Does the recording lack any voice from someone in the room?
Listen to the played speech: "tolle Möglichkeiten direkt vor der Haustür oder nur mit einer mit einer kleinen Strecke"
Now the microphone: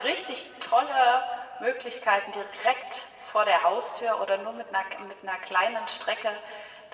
Yes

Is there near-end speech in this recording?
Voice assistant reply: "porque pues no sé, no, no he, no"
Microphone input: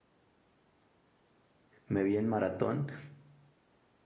Yes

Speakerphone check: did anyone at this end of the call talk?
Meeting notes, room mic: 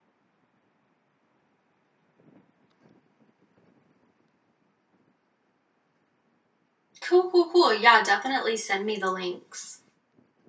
Yes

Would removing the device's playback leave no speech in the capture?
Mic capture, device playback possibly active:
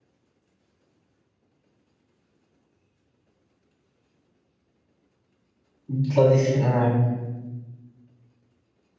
No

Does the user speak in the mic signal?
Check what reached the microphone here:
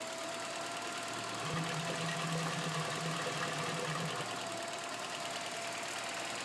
No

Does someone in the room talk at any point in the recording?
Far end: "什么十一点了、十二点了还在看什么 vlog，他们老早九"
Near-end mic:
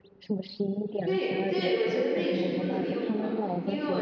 Yes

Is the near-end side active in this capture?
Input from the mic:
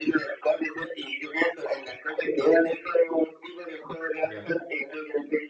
Yes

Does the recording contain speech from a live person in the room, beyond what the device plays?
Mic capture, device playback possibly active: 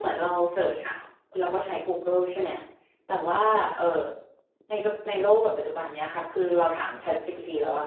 Yes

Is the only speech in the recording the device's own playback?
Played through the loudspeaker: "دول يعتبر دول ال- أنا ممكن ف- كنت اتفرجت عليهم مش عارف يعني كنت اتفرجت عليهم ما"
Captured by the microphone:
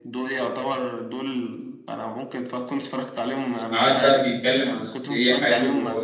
No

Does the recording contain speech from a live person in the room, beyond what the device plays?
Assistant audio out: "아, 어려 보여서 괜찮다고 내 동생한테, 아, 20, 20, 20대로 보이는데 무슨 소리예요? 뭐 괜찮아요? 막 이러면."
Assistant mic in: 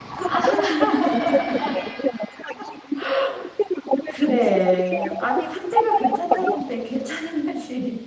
Yes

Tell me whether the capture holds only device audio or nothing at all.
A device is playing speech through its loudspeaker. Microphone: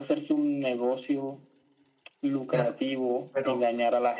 No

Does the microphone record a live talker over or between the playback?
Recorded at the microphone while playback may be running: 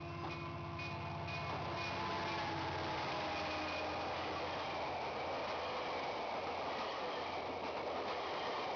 No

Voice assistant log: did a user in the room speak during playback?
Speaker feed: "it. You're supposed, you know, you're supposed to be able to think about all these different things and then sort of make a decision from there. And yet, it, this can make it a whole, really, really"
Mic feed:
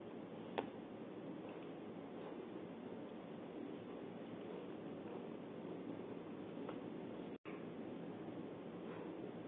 No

